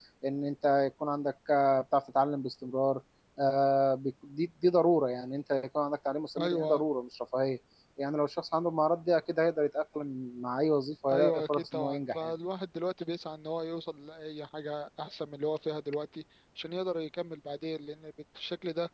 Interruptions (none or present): present